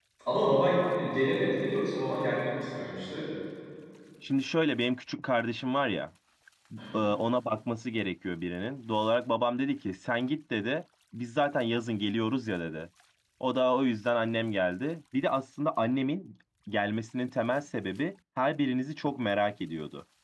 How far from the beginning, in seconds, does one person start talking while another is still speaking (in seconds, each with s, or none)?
none